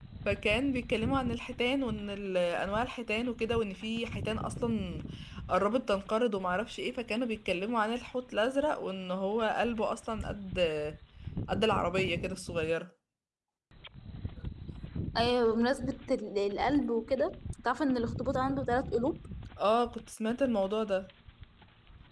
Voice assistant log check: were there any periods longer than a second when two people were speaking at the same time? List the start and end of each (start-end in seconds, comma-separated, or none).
none